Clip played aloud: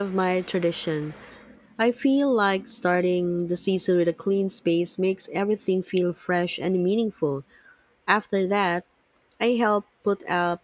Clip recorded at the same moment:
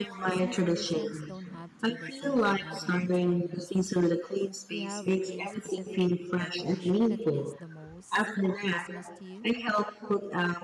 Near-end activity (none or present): present